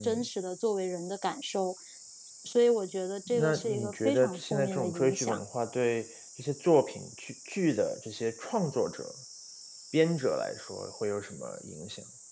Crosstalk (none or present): present